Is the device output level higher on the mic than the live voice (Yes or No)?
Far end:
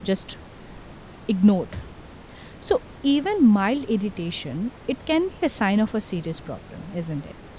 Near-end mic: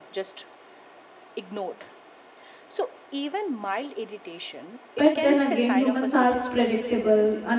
No